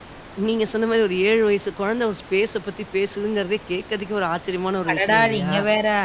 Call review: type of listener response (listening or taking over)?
taking over